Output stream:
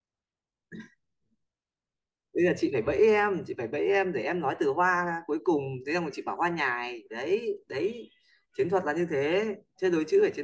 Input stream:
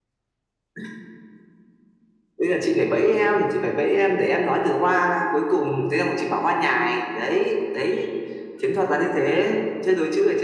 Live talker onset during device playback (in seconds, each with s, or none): none